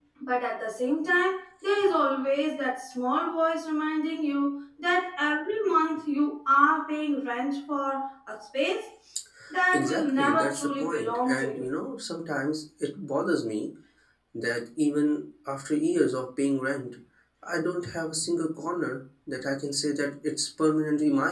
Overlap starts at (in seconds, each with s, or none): 9.7 s